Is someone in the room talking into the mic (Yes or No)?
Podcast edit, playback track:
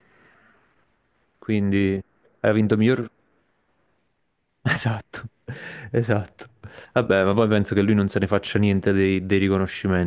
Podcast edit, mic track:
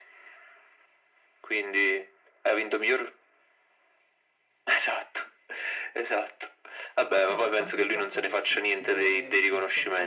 Yes